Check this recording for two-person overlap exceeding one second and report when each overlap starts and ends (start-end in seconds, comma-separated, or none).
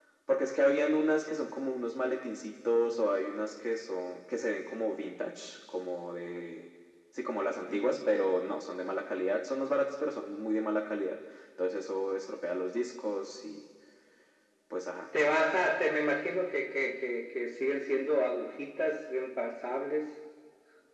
none